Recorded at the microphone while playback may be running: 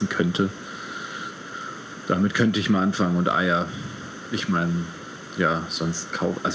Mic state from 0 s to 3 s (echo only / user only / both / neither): echo only